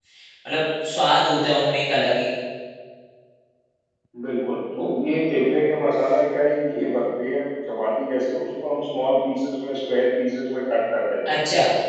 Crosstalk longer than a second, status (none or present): none